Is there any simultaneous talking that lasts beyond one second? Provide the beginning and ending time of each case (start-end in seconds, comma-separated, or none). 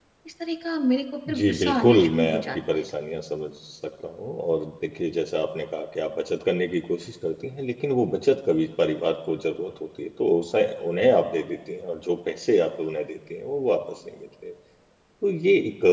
1.3-2.8